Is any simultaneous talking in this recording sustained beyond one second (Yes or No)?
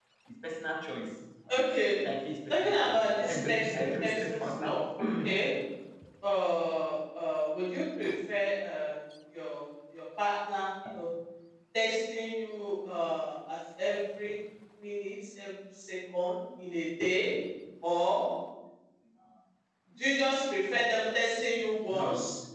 Yes